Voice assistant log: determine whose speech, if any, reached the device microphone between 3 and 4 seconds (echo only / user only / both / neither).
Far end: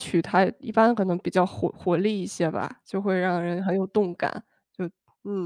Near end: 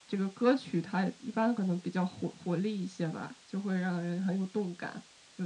echo only